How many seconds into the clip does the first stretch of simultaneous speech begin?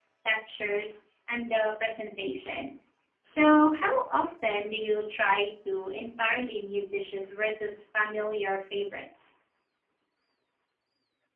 none

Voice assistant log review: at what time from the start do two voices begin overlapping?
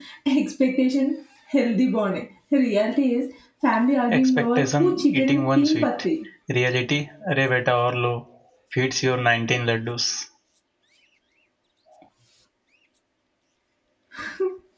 4 s

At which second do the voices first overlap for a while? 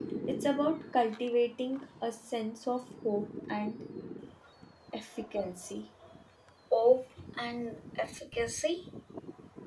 none

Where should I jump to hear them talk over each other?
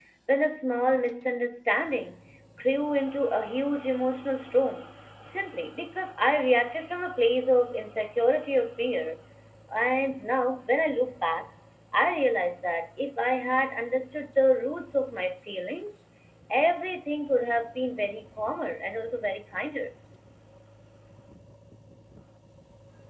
none

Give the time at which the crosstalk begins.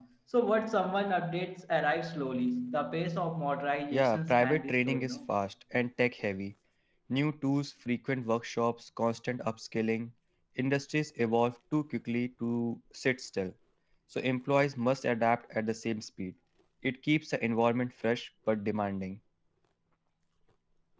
4 s

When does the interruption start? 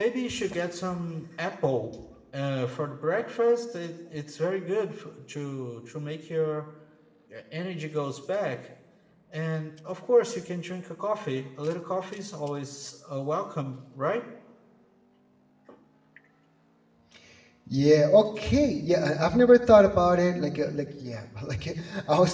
none

